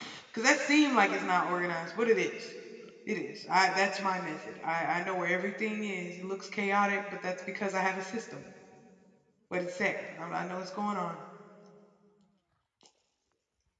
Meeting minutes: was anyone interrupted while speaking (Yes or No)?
No